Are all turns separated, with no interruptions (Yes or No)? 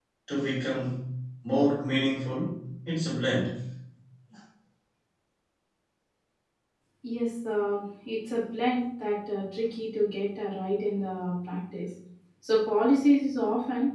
Yes